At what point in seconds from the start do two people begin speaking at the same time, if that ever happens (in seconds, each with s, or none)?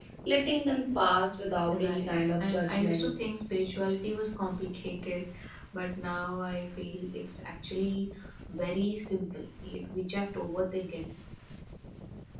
1.6 s